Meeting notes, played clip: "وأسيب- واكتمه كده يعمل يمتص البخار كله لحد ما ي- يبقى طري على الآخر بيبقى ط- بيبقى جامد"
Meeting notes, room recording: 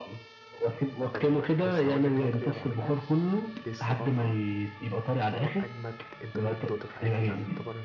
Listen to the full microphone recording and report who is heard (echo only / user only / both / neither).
both